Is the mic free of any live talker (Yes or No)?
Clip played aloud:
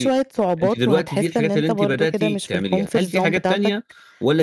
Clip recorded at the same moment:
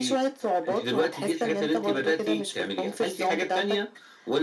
Yes